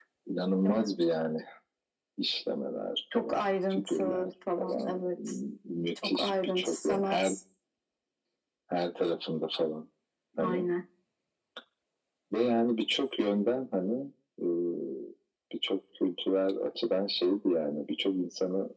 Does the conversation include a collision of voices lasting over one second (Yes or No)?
Yes